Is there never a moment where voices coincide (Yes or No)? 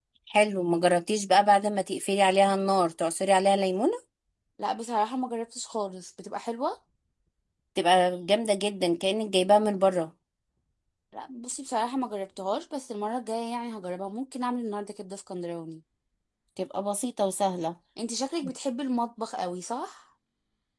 Yes